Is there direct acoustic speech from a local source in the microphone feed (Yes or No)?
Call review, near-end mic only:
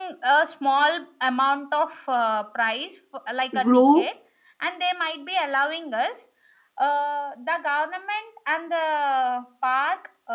Yes